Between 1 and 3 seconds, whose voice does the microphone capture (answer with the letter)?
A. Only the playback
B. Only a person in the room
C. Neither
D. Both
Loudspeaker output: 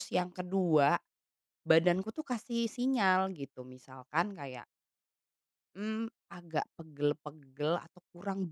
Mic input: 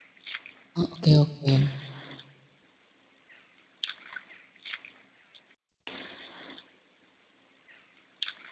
B